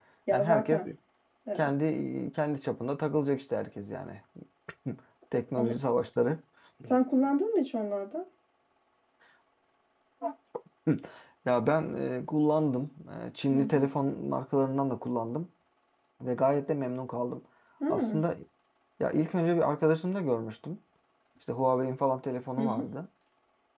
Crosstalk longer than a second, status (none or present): none